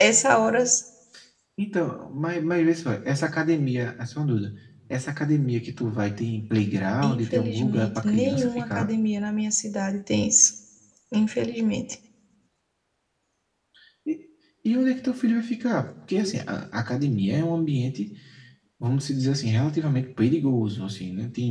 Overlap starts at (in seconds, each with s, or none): 7.0 s